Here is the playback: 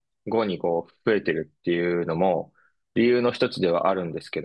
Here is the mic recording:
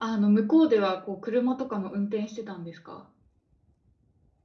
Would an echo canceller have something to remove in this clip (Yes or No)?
No